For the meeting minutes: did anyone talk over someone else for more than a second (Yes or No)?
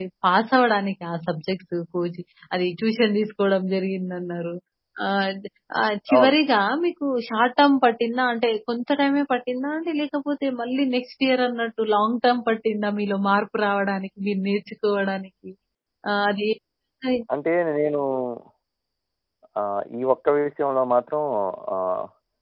No